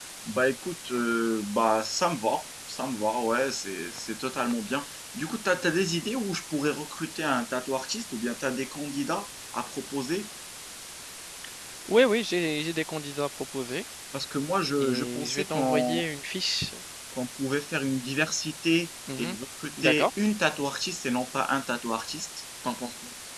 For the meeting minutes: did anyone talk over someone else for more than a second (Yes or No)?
Yes